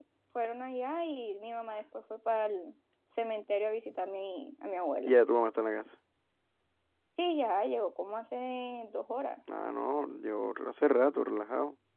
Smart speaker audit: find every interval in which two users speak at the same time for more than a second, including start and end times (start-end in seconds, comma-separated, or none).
none